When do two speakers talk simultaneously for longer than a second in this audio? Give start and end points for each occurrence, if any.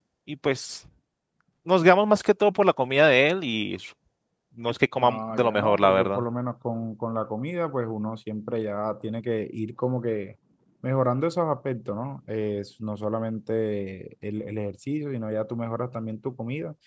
5.0-6.2

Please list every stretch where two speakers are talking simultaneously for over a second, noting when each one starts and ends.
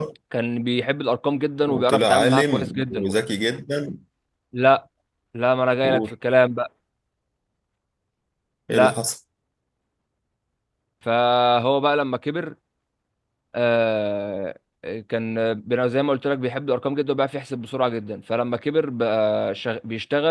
1.7-3.1

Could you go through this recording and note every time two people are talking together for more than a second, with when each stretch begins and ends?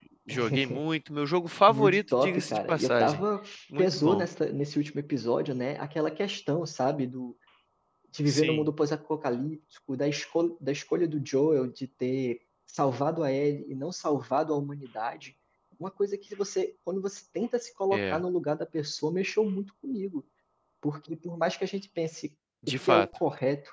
1.7-3.2

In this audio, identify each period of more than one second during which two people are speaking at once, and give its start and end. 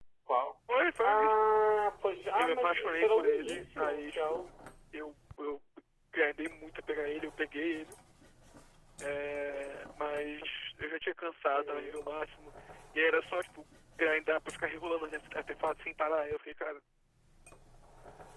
2.4-4.5

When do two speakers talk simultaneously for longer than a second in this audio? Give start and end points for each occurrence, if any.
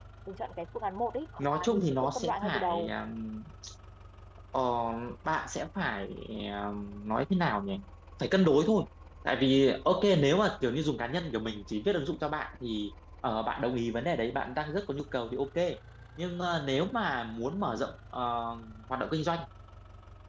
1.4-2.9

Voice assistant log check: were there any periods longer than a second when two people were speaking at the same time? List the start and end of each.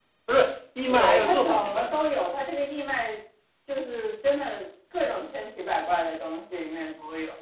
0.8-2.2

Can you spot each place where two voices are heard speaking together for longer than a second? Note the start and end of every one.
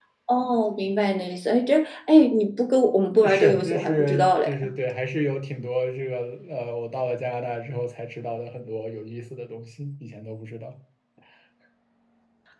3.2-4.5

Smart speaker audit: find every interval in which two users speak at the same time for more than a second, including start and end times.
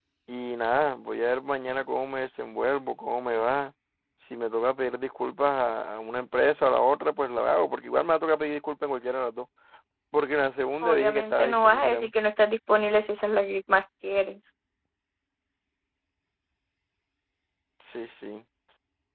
10.8-12.1

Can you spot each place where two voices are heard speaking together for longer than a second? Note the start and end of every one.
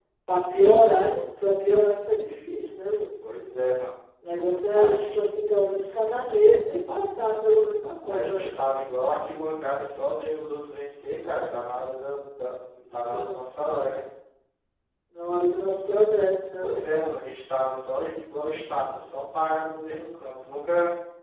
none

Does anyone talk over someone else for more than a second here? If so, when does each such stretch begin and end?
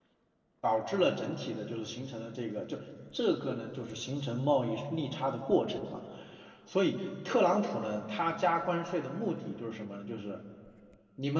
none

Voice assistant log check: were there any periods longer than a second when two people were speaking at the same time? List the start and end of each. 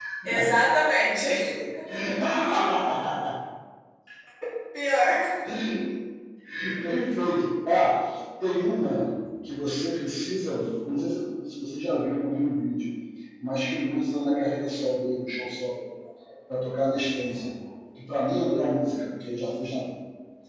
none

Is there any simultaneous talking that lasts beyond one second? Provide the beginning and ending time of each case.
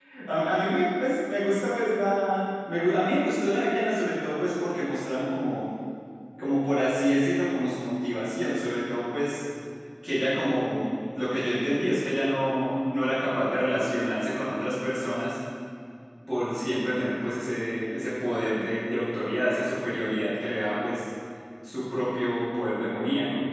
none

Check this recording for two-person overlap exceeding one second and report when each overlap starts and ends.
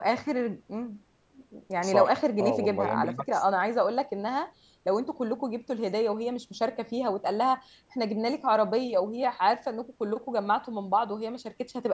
1.8-3.2

